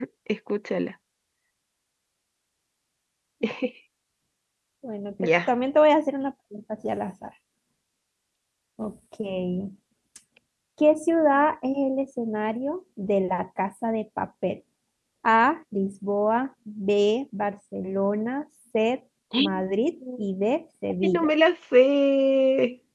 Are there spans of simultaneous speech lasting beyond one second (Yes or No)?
No